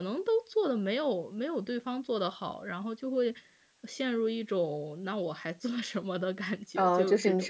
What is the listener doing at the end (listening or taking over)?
taking over